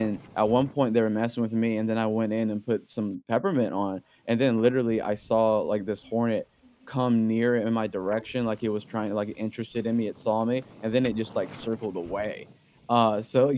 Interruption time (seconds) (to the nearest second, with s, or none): none